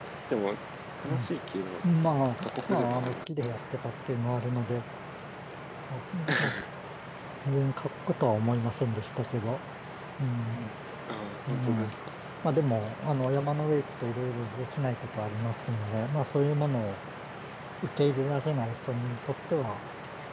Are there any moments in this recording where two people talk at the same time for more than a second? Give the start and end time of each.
2.4-3.6

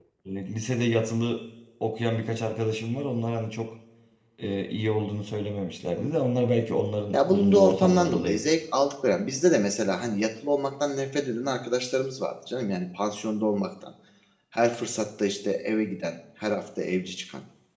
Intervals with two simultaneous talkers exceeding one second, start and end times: 7.1-8.5

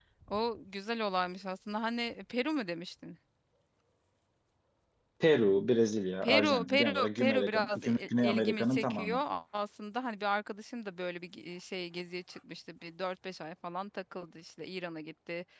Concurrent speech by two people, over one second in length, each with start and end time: 6.2-9.2

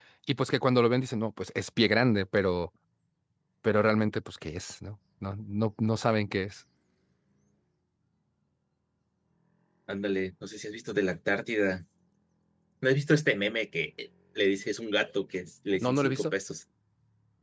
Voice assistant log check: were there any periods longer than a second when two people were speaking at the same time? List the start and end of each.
none

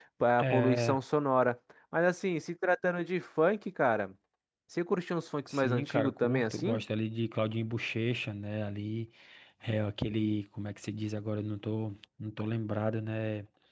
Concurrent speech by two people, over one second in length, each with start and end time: 5.5-6.8

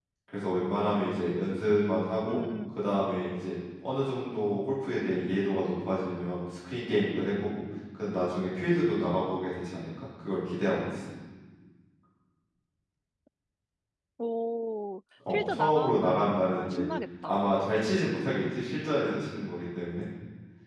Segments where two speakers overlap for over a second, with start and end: 15.3-16.8

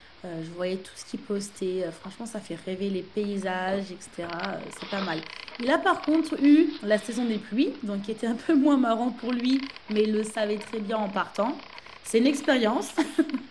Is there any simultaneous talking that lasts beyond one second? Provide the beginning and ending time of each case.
none

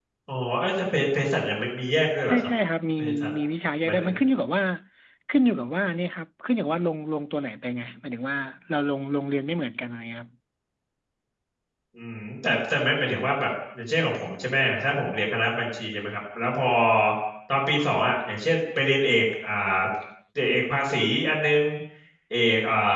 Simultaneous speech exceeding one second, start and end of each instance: none

